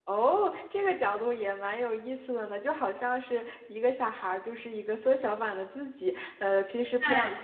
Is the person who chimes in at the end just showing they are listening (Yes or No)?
Yes